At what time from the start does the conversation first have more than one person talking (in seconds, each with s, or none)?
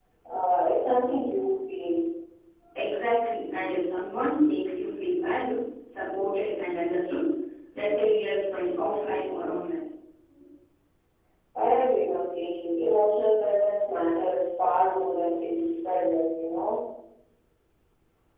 none